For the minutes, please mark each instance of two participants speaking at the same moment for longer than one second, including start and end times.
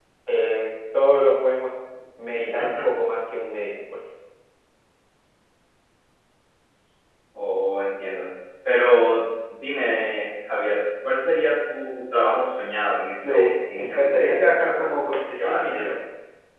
13.2-14.9

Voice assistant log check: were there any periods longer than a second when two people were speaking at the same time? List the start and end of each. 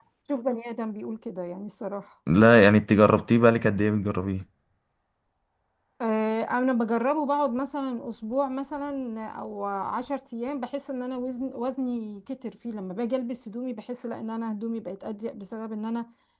none

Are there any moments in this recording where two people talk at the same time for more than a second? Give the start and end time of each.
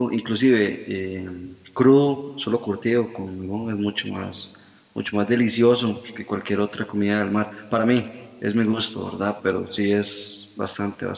none

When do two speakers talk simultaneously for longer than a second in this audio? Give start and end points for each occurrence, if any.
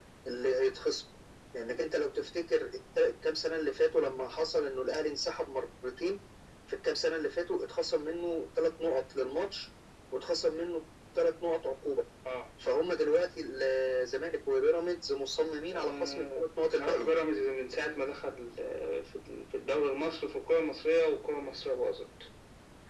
15.7-17.1

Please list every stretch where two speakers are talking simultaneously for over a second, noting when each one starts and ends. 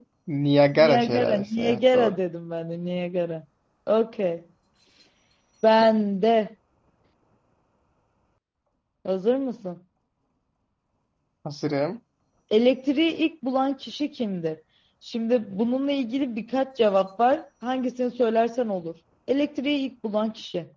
0.7-2.1

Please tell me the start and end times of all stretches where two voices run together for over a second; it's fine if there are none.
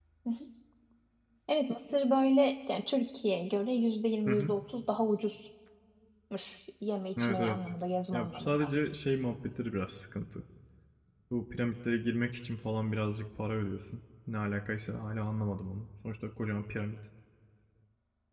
none

